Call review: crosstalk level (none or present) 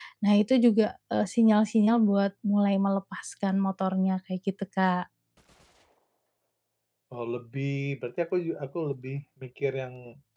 none